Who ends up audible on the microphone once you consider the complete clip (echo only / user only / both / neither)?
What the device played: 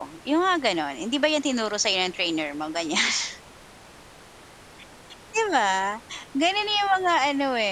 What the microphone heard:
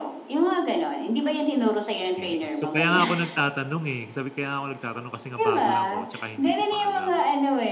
both